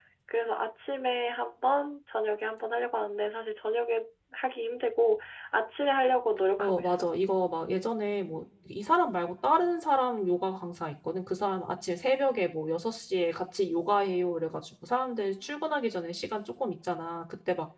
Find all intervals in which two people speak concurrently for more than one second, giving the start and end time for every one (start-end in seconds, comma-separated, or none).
none